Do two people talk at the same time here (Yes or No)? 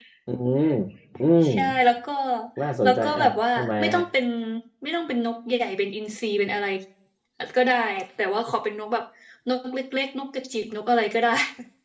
Yes